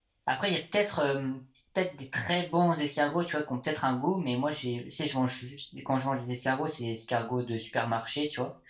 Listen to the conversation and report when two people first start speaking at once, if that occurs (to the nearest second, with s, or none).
none